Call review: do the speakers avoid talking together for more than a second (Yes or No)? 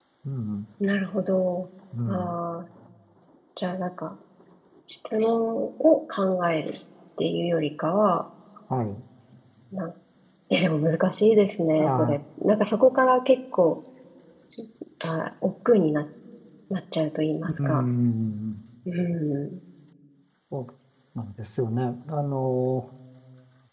Yes